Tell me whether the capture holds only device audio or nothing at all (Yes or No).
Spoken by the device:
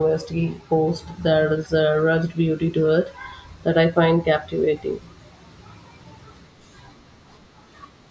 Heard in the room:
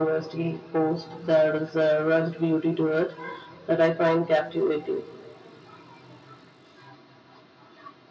Yes